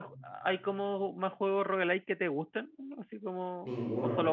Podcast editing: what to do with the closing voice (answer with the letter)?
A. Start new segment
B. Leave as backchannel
A